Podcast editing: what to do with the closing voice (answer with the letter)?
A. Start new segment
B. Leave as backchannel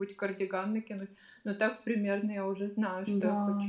A